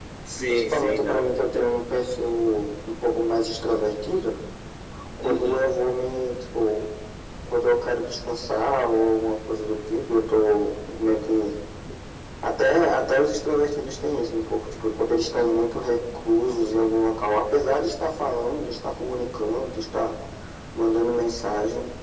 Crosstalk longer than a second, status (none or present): present